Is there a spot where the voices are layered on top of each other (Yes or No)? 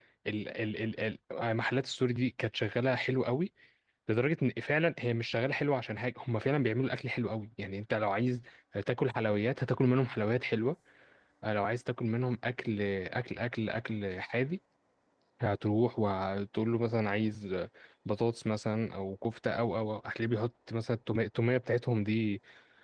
No